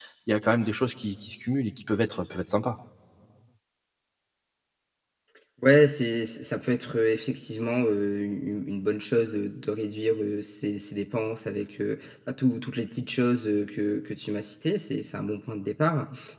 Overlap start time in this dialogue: none

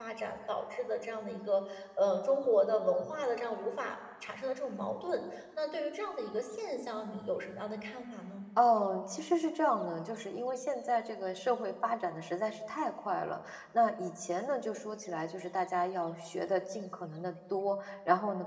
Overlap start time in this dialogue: none

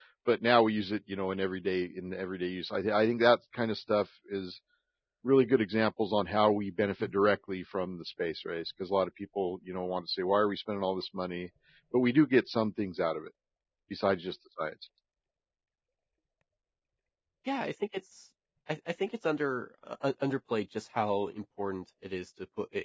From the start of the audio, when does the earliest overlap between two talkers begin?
none

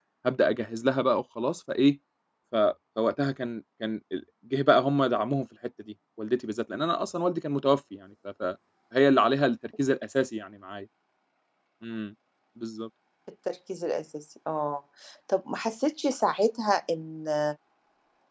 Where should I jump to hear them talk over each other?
none

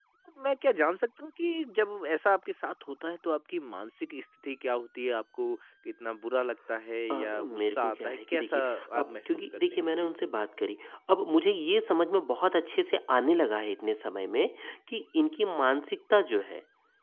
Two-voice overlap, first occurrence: 7 s

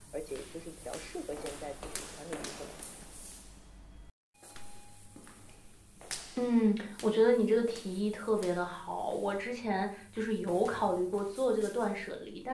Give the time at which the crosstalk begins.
none

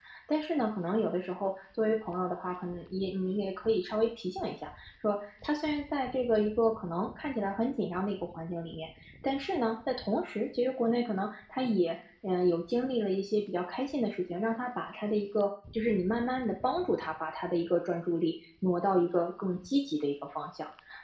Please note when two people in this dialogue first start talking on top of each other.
none

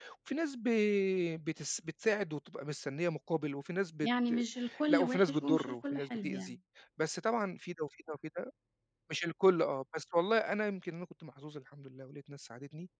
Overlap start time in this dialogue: 5 s

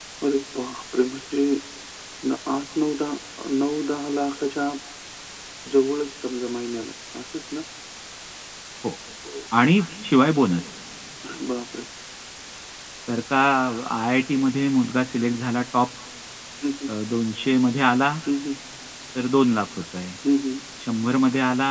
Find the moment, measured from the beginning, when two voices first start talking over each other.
none

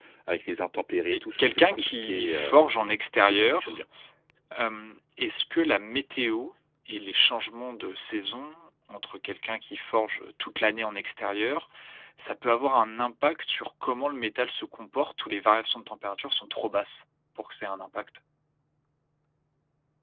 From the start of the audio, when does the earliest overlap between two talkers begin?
1 s

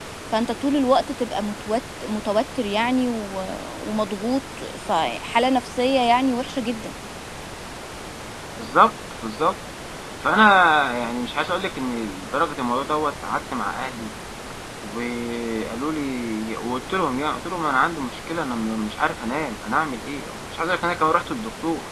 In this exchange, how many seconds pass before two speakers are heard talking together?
none

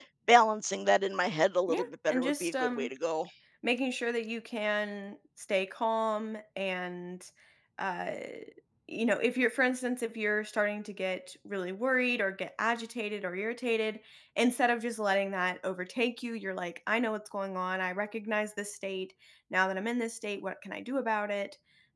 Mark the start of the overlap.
2 s

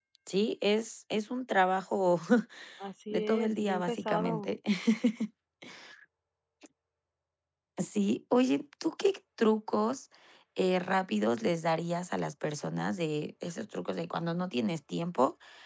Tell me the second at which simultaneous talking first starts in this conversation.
3 s

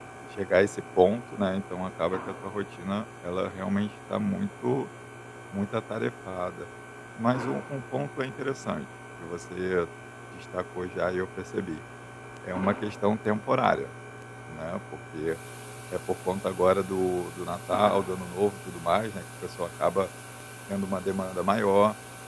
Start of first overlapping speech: none

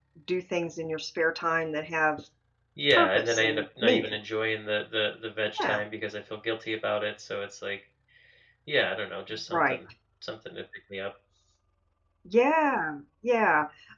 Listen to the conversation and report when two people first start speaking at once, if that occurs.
3 s

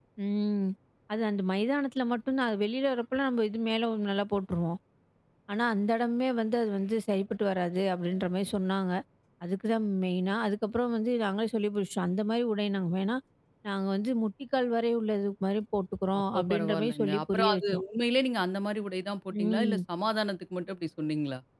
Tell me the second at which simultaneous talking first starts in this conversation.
16 s

